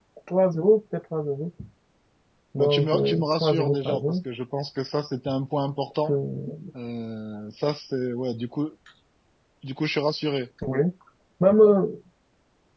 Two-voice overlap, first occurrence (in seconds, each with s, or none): 2.6 s